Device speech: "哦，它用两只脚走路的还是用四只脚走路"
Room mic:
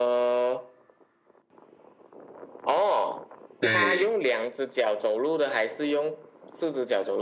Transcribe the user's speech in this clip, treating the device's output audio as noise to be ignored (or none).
对，